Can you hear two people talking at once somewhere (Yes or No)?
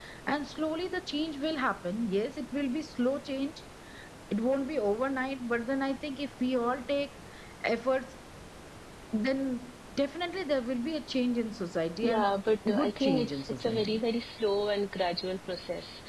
Yes